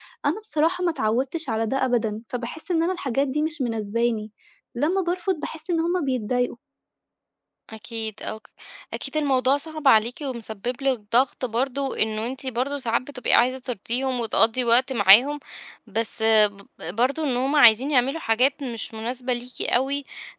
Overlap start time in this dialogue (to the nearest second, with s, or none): none